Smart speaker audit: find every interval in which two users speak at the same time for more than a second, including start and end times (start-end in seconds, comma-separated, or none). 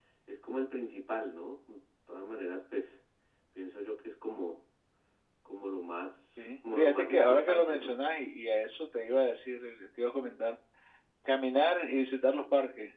6.7-7.9